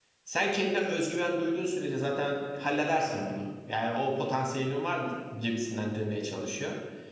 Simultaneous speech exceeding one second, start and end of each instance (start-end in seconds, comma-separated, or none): none